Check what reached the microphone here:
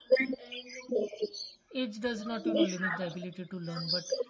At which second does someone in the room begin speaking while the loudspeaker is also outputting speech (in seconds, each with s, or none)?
1.7 s